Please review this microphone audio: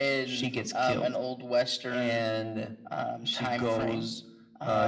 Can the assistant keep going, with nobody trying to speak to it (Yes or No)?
Yes